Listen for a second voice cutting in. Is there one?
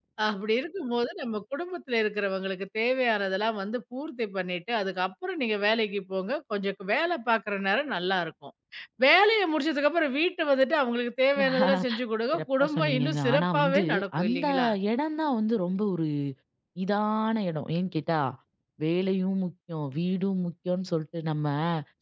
Yes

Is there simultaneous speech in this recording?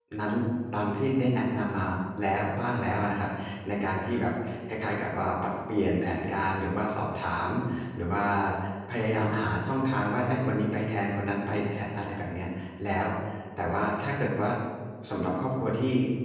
No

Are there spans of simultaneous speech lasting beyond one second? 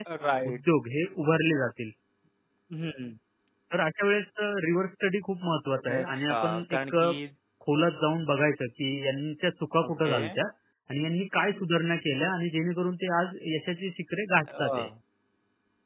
Yes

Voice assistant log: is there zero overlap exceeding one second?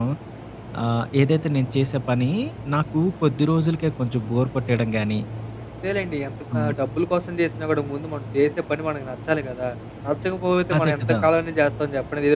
Yes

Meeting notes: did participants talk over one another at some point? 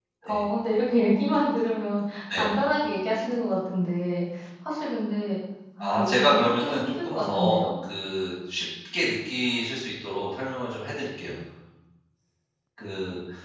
Yes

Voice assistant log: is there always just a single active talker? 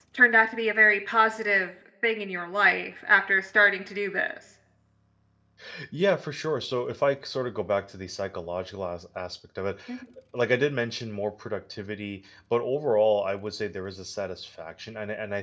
Yes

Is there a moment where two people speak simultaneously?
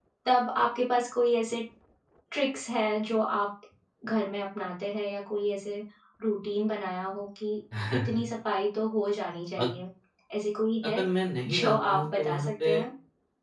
Yes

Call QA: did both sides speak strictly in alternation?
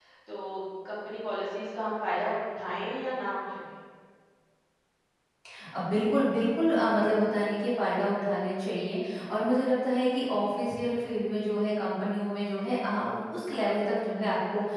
Yes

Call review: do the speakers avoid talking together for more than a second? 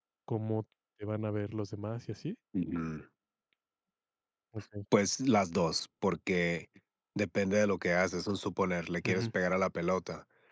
Yes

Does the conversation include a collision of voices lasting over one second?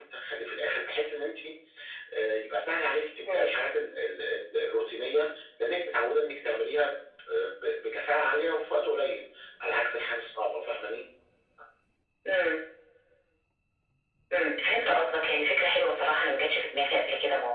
No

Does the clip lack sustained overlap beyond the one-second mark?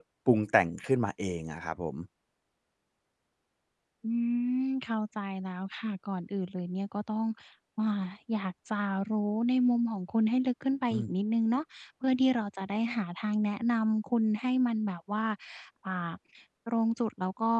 Yes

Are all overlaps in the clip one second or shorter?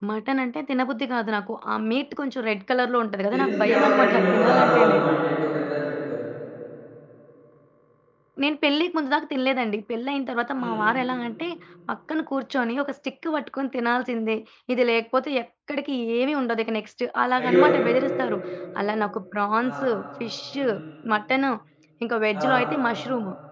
No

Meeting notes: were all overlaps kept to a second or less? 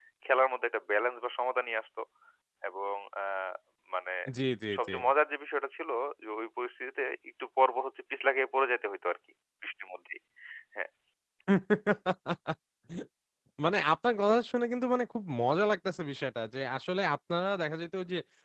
Yes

